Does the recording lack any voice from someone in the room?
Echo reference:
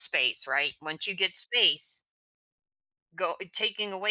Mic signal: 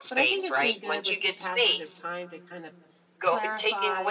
No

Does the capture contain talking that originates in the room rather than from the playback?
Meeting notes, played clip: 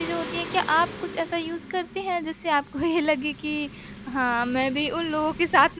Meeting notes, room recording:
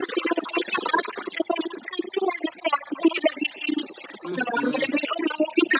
Yes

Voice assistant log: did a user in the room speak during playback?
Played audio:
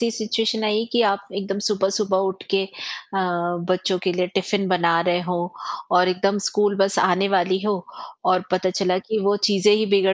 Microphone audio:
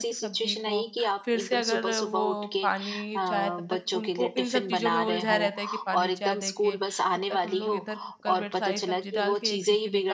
Yes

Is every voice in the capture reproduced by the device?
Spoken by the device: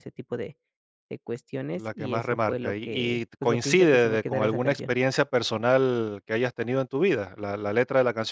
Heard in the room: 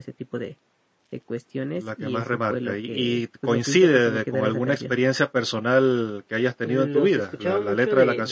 No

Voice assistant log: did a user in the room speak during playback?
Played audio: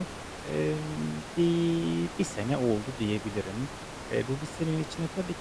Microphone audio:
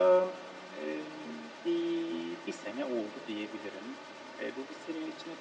No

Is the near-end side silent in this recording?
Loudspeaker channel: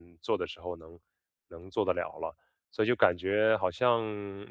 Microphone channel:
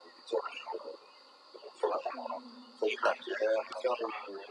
No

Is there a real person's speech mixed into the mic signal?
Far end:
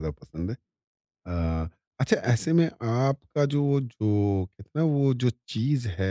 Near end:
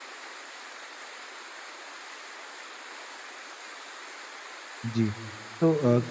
Yes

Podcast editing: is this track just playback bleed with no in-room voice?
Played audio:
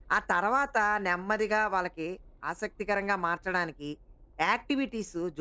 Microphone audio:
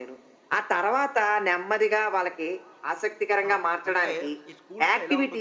No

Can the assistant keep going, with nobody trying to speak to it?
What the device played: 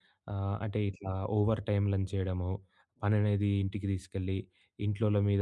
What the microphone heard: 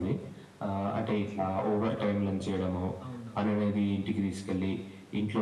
No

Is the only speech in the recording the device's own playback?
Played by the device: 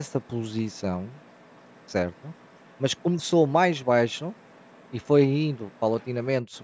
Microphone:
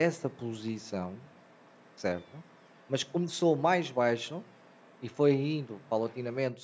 Yes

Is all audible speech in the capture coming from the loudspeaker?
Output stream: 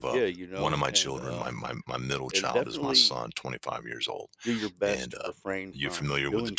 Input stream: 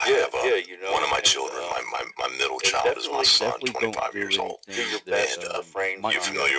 No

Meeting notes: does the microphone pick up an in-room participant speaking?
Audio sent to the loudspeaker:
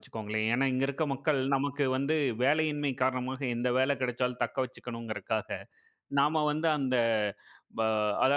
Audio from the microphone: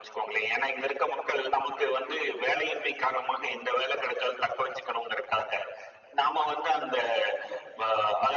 No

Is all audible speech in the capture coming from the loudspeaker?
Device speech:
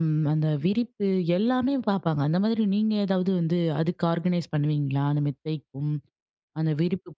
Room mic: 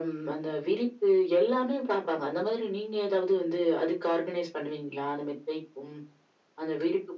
Yes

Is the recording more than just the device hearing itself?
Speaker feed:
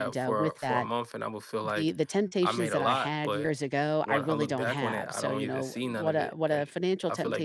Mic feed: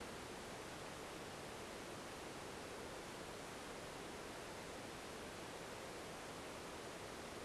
No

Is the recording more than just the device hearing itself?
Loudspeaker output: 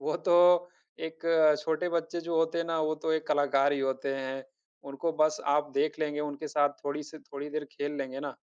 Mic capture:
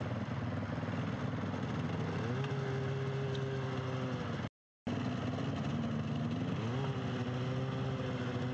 No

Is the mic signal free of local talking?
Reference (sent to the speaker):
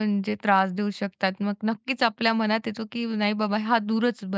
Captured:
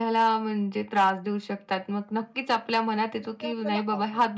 No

